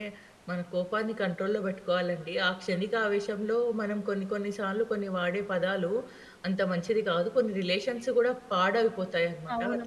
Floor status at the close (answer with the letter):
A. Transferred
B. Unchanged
A